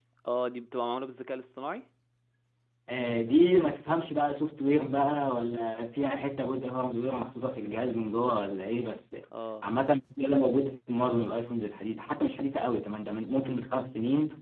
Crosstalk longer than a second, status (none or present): none